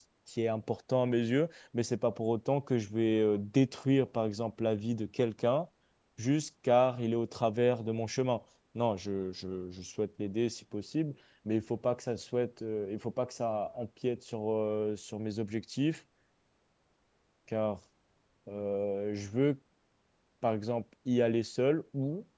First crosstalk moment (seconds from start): none

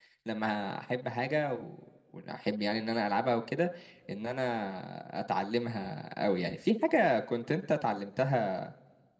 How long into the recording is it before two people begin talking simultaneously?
none

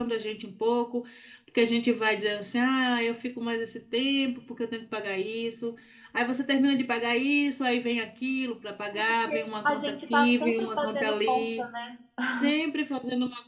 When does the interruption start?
8.9 s

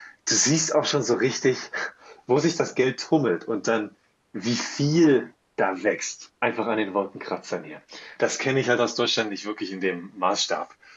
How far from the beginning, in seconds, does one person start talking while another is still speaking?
none

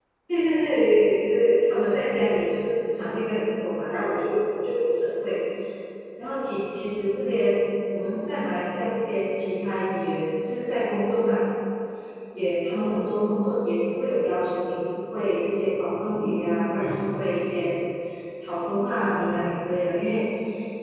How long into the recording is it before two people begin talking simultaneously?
none

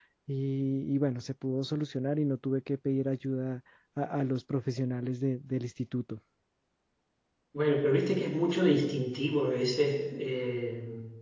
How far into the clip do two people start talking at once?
none

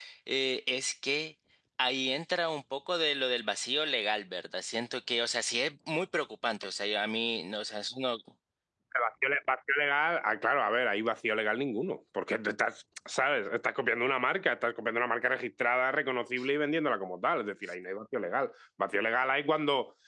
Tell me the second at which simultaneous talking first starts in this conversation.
none

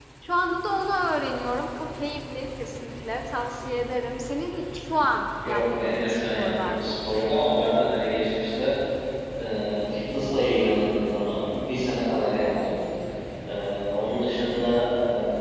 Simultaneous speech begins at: 5.4 s

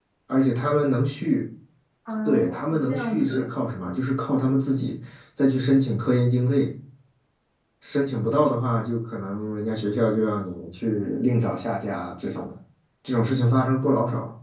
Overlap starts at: 2.2 s

